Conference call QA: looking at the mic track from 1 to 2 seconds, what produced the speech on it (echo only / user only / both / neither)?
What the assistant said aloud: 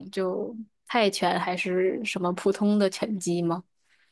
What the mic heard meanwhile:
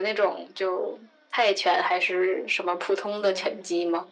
echo only